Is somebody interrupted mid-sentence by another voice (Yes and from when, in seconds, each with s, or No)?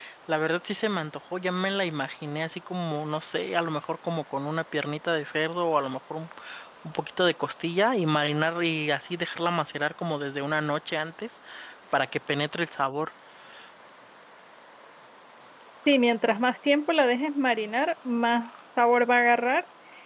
No